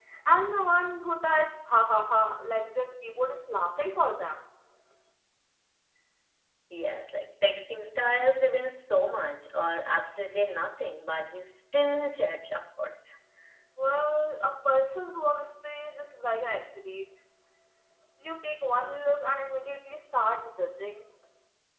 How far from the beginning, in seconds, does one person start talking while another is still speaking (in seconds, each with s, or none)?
none